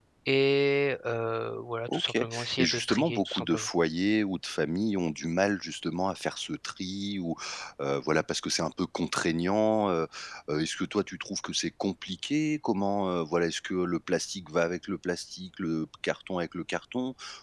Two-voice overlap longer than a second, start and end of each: 1.9-3.7

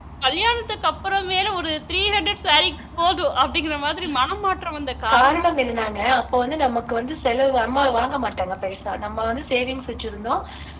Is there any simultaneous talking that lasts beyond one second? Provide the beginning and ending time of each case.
none

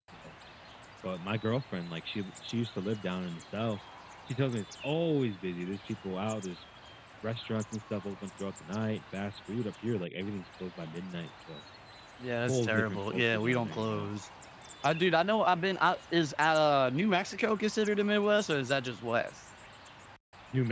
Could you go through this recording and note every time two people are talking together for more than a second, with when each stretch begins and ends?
12.5-14.1

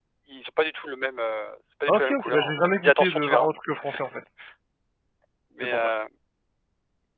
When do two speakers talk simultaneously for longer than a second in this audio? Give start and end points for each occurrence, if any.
1.9-3.5

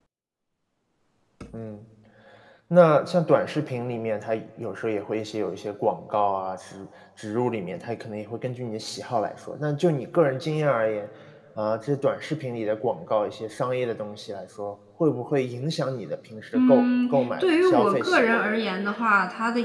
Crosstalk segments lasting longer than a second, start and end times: 16.6-18.4

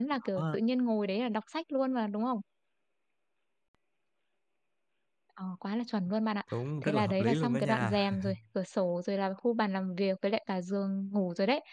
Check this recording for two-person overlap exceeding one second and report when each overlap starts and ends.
6.8-8.1

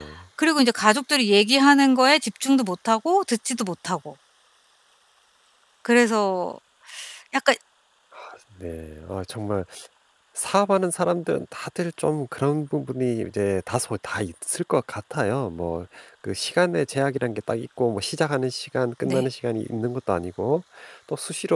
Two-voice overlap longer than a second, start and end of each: none

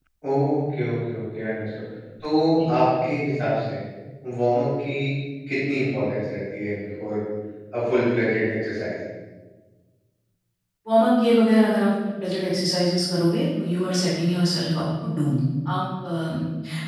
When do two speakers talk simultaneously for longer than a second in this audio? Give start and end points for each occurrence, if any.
none

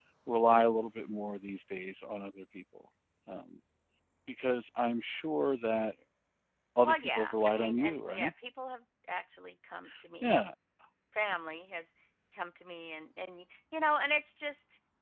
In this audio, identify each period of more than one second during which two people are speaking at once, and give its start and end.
6.8-8.3

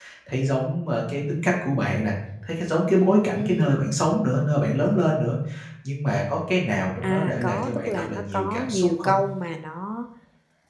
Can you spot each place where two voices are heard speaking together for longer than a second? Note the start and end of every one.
7.0-9.1

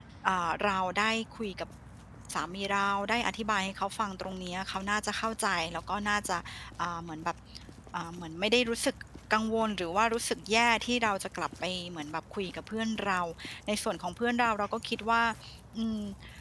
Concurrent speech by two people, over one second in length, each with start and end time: none

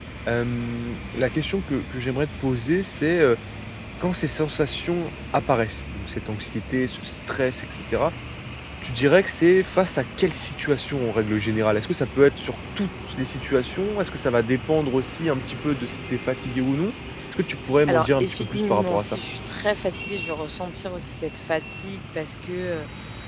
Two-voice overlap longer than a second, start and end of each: 17.9-19.2

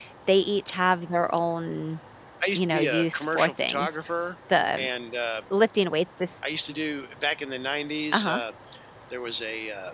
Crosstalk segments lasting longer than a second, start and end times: 2.5-4.0

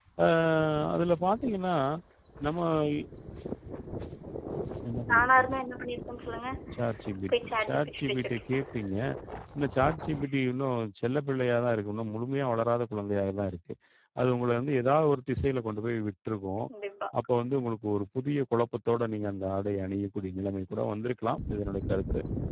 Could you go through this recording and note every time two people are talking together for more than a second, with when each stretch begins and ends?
7.3-8.6

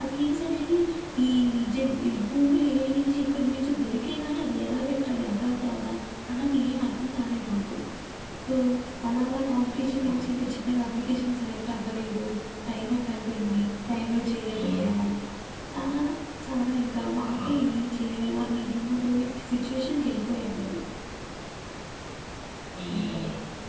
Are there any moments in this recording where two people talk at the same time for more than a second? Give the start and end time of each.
none

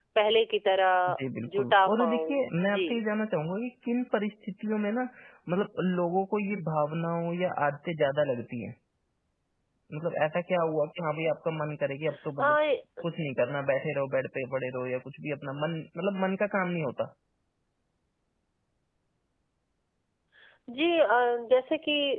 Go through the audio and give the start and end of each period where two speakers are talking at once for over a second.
1.6-3.0

